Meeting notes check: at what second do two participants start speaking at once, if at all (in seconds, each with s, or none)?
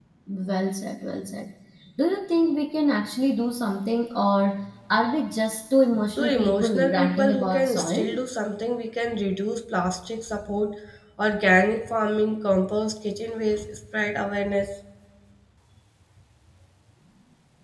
6.2 s